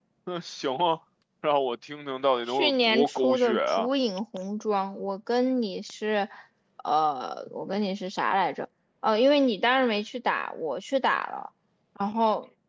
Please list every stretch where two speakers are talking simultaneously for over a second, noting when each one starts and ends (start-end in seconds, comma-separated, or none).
2.5-3.9